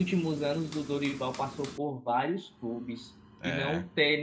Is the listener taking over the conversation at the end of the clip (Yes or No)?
No